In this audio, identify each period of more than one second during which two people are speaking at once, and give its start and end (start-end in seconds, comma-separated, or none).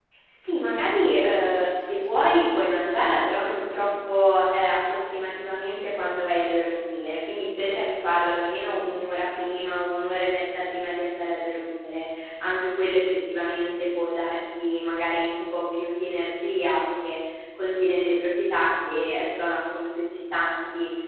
none